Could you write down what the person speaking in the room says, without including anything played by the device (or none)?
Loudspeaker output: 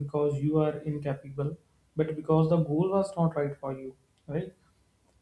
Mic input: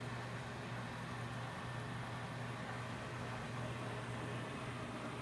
none